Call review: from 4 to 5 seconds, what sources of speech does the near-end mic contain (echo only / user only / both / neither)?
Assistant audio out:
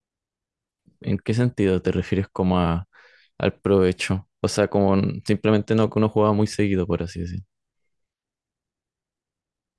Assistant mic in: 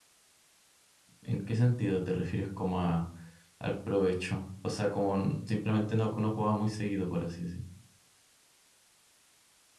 echo only